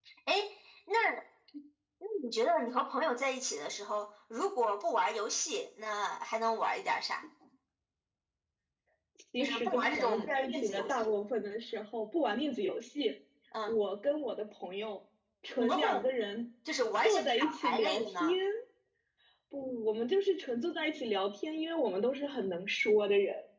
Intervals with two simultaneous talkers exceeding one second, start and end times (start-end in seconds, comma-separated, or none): 9.4-11.0, 17.0-18.4